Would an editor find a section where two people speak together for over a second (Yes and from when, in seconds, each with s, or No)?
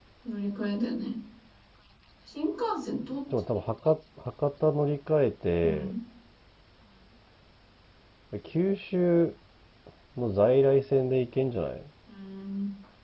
No